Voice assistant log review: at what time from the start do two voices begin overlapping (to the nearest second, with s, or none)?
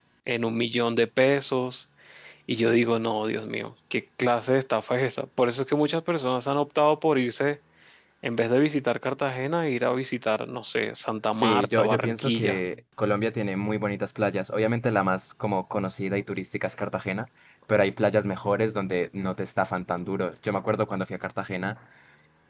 11 s